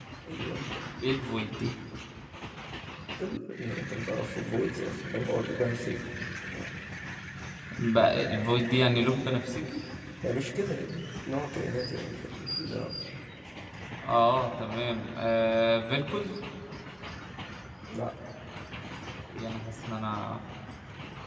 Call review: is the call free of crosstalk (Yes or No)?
Yes